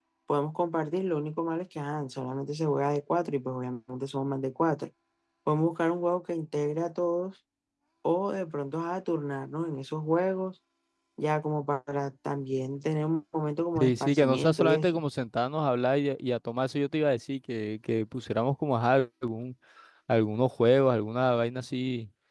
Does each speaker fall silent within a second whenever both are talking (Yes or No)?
No